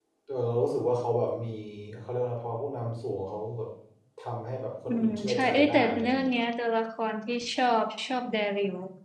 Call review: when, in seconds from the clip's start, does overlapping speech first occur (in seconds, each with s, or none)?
4.9 s